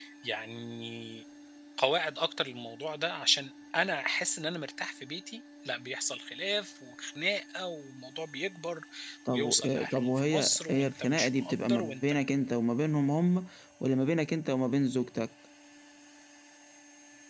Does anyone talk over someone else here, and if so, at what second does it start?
9.3 s

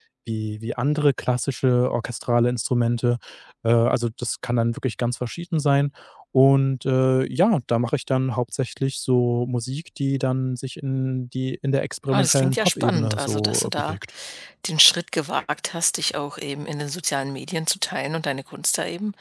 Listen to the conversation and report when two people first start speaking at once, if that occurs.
12.1 s

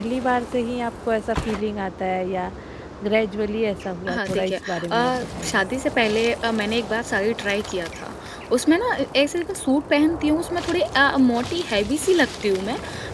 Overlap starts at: 4.1 s

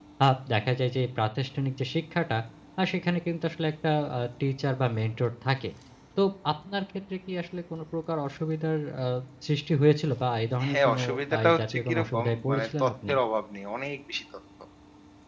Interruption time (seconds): 10.6 s

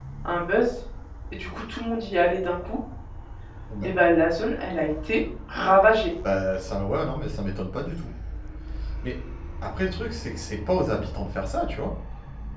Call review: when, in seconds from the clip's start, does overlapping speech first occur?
none

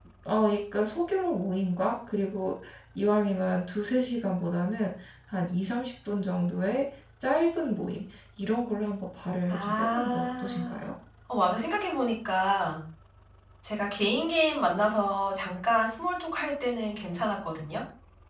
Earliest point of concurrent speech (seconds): 9.5 s

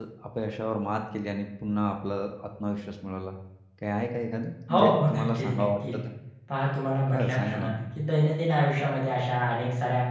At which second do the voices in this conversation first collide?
4.7 s

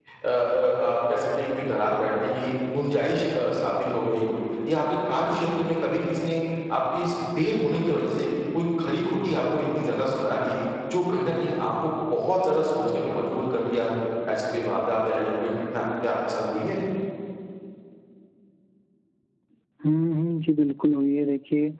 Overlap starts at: none

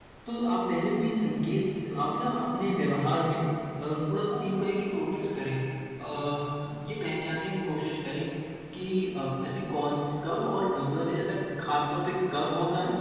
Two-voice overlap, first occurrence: none

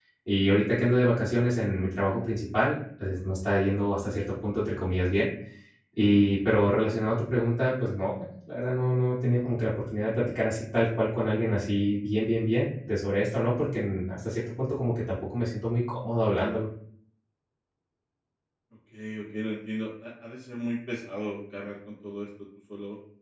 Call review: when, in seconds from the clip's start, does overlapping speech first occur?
none

